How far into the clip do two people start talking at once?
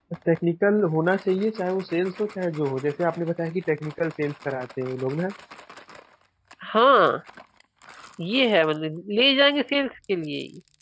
none

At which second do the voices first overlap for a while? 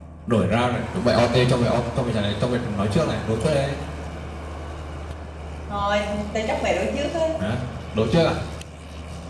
none

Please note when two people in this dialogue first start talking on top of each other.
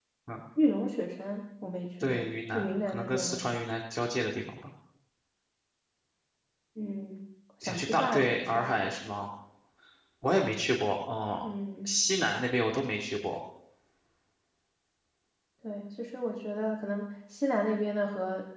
2.0 s

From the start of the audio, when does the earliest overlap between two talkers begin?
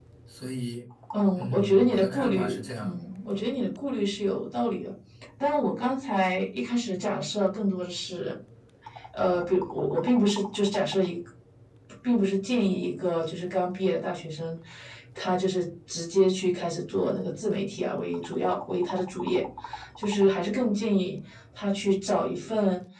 1.4 s

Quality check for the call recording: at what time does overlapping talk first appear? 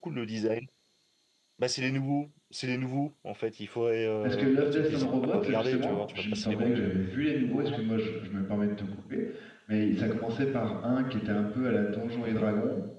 4.2 s

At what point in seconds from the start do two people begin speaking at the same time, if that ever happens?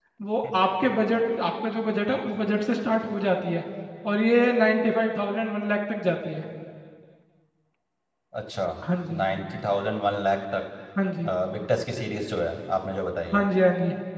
none

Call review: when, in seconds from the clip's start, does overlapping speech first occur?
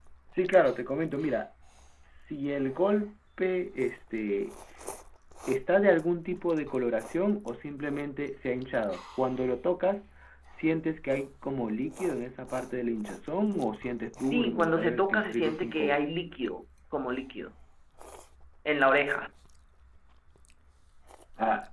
14.3 s

